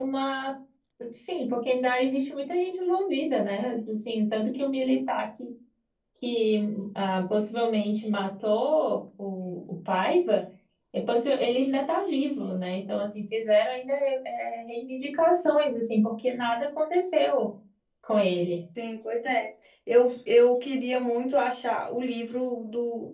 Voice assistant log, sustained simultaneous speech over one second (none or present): none